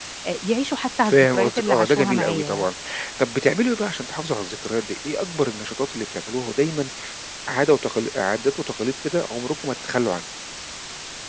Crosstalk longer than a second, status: present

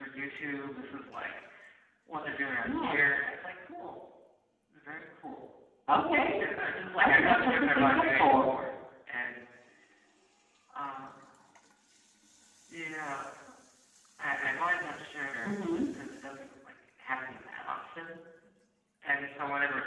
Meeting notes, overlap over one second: present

